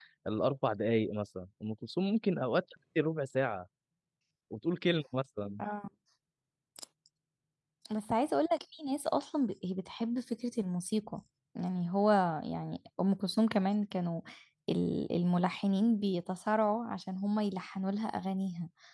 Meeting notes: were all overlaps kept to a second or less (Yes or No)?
Yes